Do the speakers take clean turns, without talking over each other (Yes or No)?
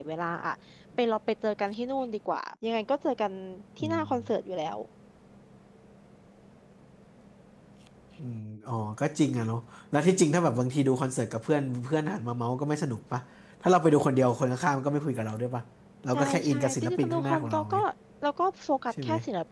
No